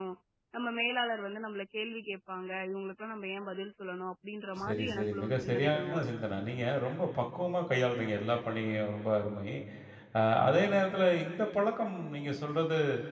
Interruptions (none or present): present